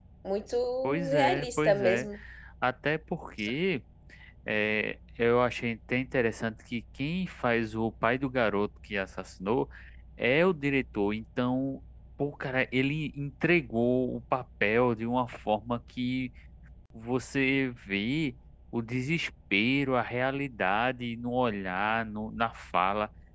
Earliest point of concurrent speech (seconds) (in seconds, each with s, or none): 0.8 s